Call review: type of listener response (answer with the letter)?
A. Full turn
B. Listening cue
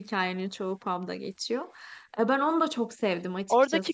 A